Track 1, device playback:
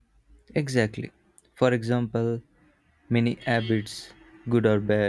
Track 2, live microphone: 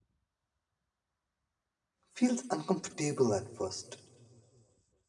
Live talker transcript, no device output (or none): feels uncomfortable at first